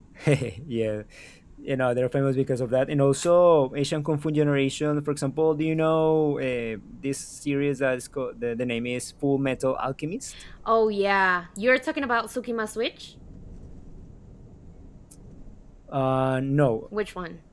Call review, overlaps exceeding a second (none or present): none